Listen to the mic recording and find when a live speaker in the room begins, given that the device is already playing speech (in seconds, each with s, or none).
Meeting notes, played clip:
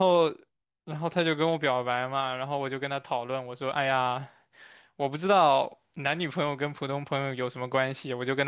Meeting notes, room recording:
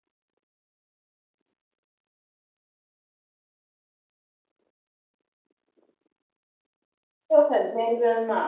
7.3 s